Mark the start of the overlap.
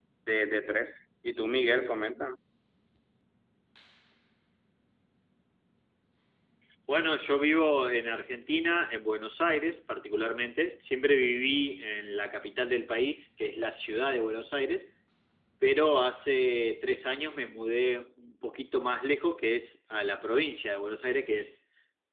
none

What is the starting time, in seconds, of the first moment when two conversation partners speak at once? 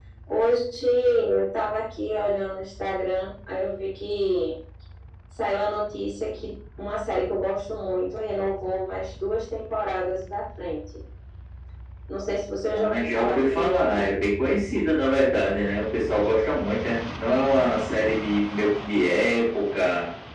13 s

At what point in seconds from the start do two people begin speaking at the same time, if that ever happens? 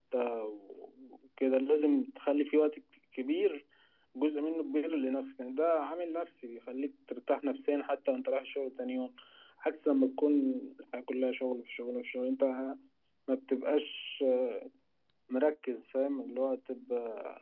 none

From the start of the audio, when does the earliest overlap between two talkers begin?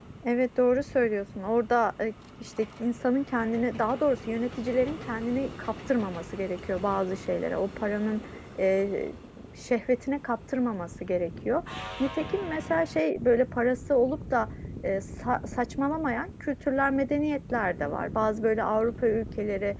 none

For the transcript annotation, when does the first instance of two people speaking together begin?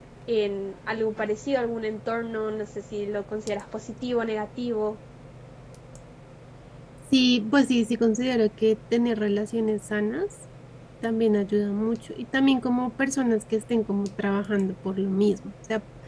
none

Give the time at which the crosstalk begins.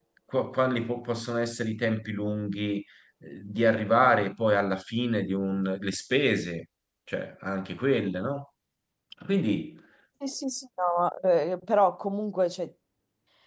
none

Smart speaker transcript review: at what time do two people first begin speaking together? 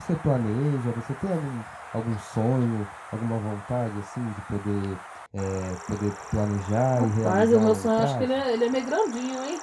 7 s

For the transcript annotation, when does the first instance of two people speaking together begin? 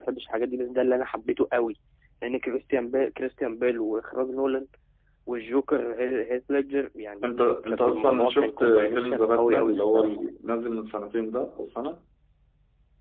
8 s

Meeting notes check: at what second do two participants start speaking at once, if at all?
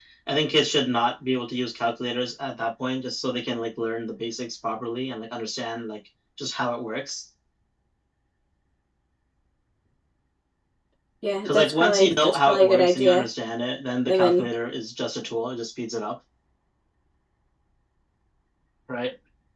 11 s

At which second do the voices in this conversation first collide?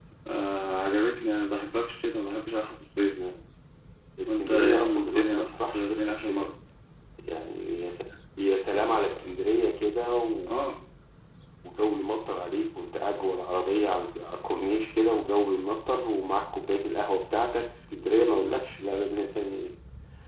4 s

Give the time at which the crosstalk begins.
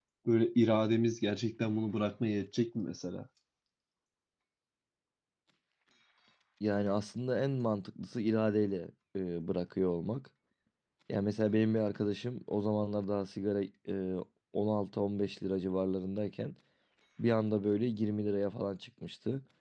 none

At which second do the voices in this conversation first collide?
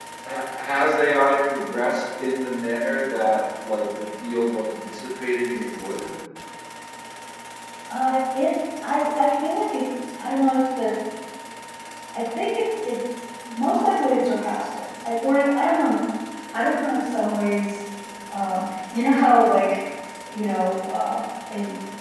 none

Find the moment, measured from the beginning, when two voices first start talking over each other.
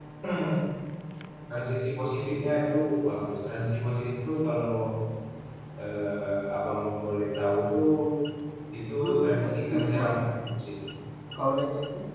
9 s

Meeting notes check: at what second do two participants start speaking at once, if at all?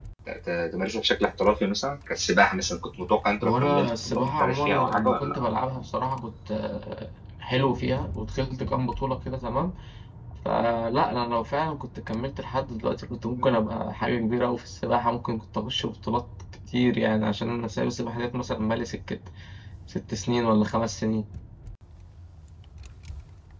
3 s

